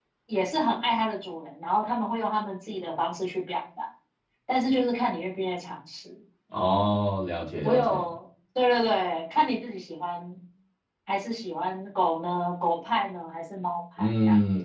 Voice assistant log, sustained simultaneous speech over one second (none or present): none